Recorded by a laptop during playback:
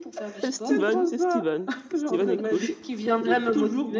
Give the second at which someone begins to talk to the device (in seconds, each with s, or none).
0.3 s